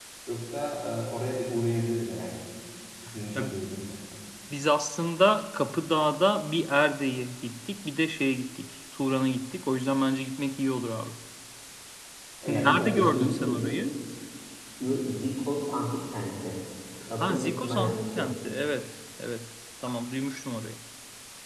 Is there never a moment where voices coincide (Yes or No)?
No